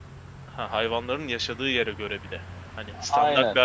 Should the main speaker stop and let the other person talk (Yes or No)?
Yes